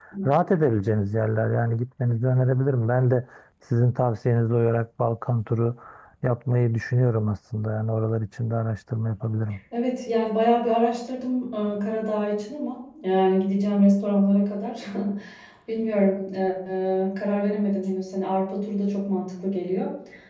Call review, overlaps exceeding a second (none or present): none